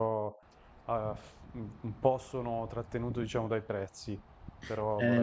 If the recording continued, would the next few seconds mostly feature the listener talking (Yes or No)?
Yes